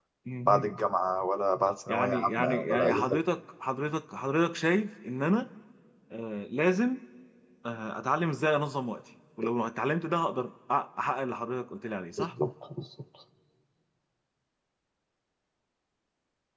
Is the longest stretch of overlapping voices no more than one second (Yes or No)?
No